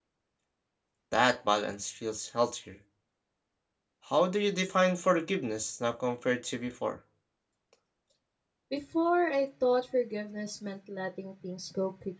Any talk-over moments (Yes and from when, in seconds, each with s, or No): No